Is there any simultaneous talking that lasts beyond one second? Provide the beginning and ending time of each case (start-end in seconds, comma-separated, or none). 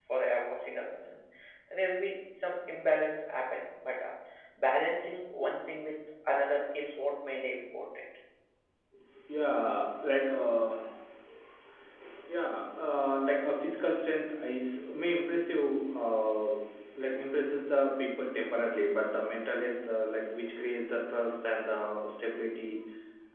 none